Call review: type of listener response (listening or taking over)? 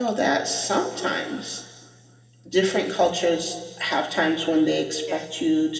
listening